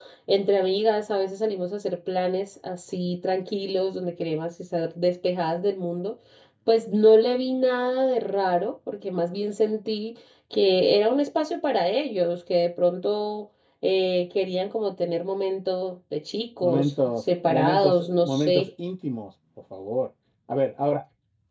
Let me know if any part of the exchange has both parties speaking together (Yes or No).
Yes